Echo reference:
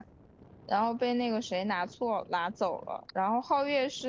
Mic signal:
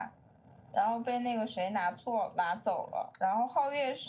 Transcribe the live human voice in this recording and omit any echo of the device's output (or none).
none